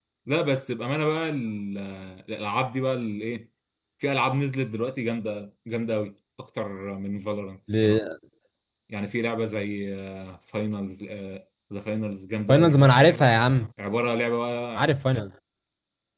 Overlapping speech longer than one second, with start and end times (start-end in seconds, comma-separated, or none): none